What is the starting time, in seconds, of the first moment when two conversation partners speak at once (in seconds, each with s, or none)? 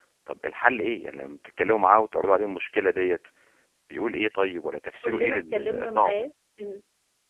5.0 s